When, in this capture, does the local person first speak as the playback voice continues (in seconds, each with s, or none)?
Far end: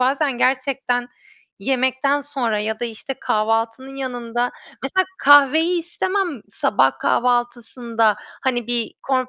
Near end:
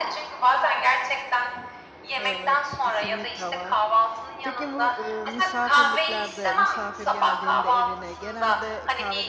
2.2 s